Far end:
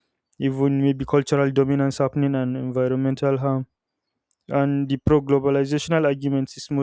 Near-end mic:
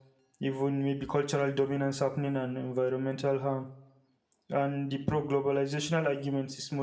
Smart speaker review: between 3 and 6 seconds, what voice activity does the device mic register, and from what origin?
echo only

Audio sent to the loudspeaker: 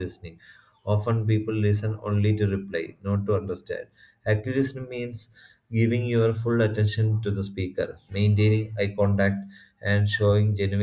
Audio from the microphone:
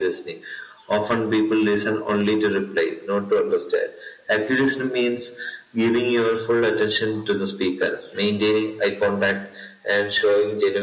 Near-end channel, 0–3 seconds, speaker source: echo only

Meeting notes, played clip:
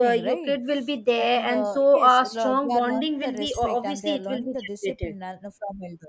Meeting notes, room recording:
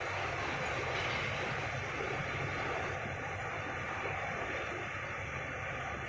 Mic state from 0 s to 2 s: neither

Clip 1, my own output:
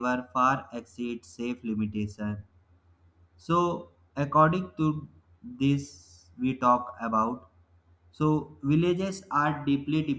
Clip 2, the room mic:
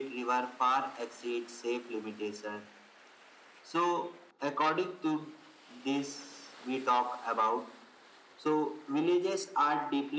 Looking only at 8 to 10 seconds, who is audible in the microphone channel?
echo only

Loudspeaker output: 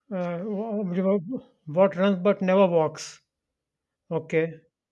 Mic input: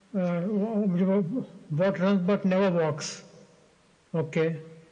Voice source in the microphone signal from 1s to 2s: echo only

